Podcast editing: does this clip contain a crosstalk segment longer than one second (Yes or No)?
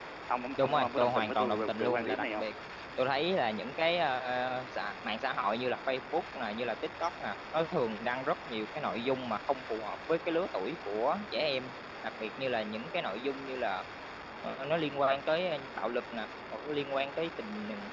Yes